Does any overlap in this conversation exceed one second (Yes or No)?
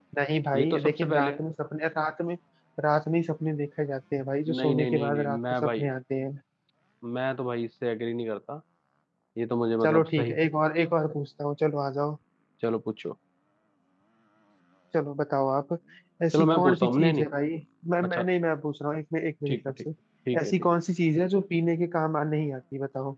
Yes